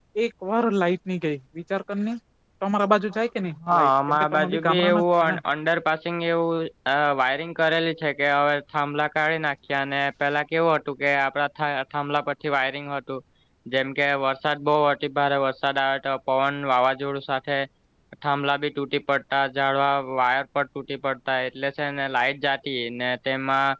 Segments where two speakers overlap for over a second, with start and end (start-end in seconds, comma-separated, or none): 3.7-5.4